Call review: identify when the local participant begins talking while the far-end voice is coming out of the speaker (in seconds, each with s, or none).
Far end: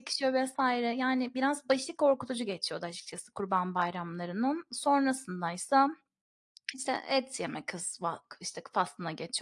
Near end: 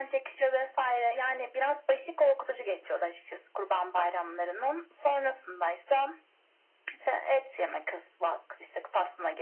none